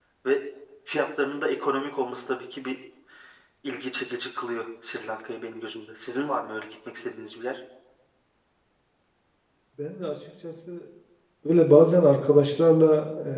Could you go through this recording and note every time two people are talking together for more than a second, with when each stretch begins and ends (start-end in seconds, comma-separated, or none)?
none